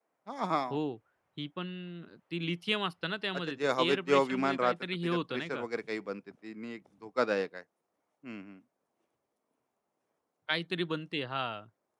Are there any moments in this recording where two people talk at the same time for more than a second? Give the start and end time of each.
3.4-5.6

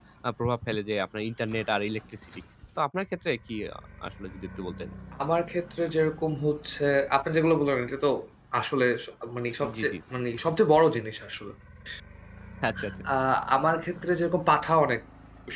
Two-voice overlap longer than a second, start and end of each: none

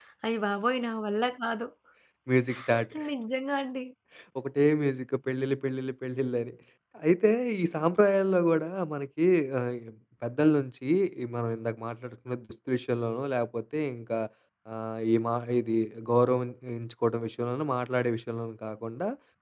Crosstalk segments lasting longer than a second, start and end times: none

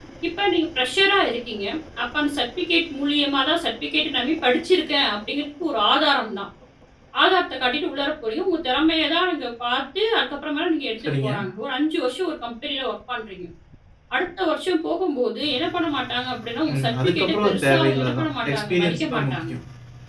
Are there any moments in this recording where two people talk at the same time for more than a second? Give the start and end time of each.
16.7-19.5

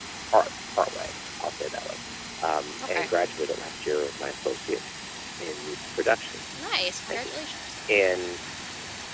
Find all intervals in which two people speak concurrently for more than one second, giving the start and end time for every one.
none

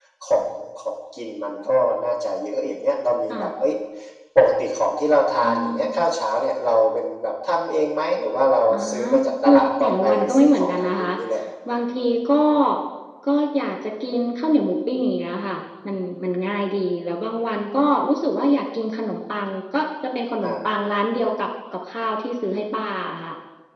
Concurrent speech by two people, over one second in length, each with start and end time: 9.4-11.1

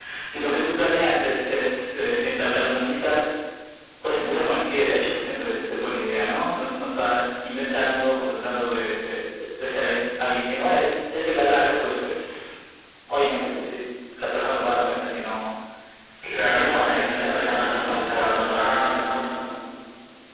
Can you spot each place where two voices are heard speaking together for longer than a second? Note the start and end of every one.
16.4-18.4

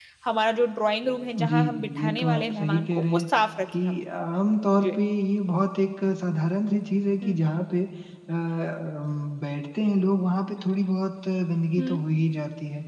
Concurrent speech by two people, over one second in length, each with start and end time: 1.4-3.3

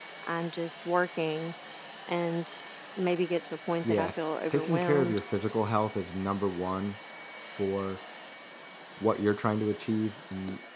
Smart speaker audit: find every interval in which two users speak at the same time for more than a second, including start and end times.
3.8-5.2

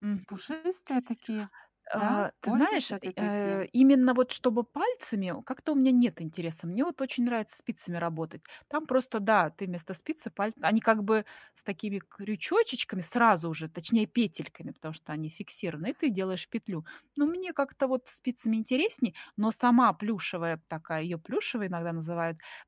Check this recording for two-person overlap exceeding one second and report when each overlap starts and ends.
1.9-3.6

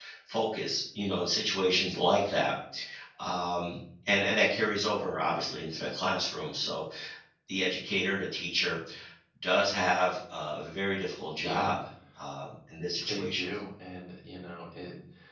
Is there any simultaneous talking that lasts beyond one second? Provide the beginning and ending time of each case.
none

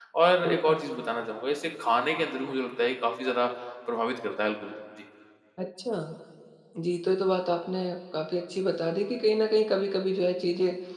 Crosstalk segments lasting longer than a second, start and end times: none

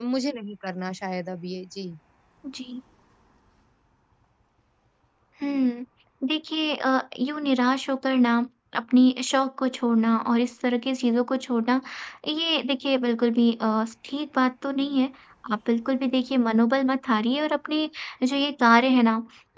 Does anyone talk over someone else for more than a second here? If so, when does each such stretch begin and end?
none

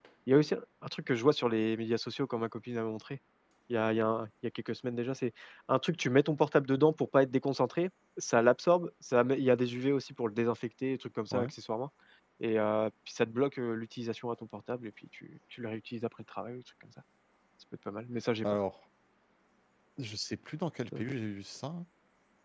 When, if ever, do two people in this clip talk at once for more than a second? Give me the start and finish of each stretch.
none

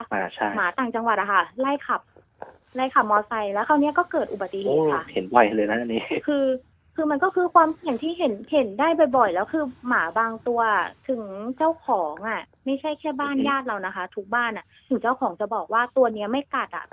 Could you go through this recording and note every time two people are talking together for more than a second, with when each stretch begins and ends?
none

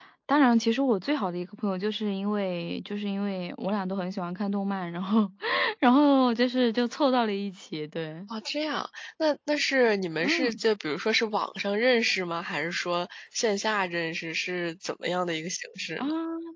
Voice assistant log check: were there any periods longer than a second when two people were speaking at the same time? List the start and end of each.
none

